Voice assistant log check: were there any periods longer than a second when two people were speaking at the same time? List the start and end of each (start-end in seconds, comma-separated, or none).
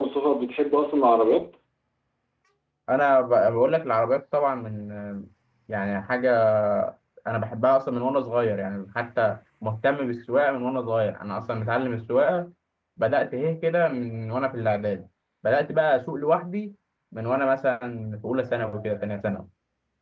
none